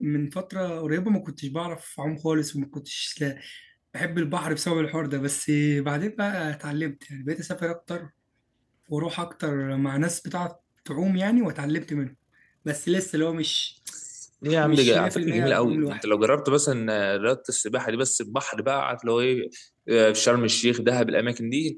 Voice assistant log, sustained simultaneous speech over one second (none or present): present